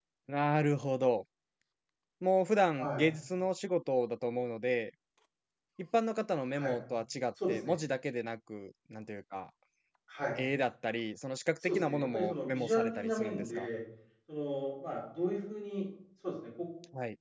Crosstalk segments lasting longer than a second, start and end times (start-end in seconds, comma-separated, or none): 11.6-13.7